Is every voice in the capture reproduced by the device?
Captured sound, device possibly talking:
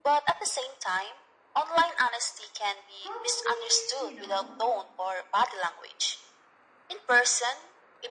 No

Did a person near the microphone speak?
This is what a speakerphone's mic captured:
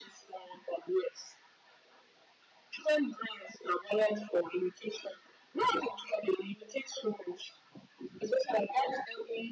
No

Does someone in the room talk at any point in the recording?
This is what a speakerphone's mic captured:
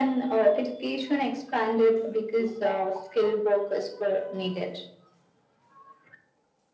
No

